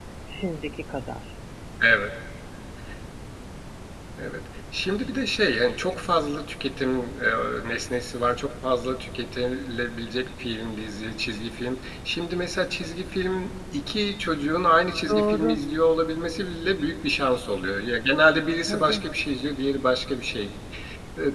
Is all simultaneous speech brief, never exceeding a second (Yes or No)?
Yes